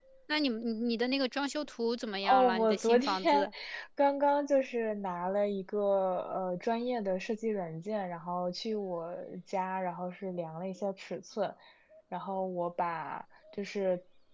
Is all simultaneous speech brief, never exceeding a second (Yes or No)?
No